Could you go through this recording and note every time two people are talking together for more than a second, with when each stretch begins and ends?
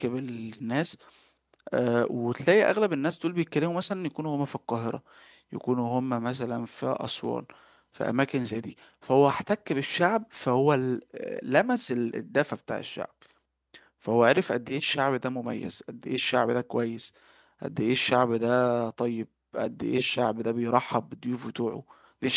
none

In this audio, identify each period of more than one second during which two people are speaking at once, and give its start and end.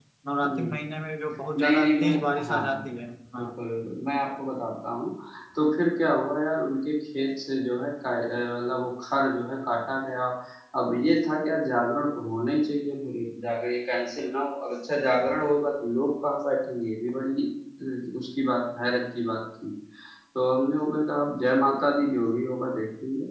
1.6-2.8

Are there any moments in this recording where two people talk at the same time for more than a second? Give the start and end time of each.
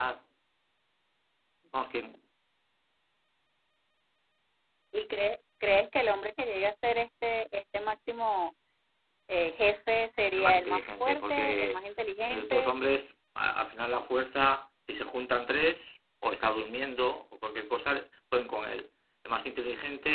10.3-11.8

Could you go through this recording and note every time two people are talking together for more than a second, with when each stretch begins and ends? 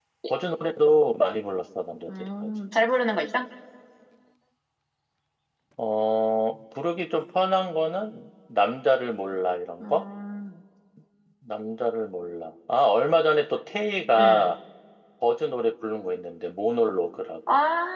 none

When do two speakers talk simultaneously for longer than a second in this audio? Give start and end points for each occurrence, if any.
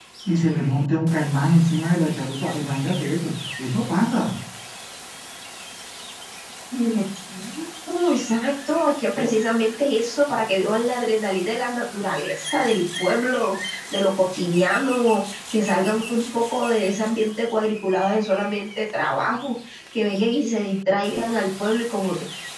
none

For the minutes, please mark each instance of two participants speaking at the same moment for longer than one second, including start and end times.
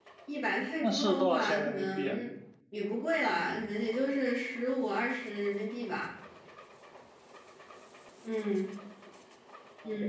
0.8-2.2

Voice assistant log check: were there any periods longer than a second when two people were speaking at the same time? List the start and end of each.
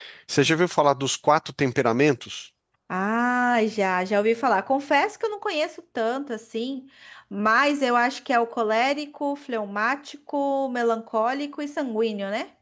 none

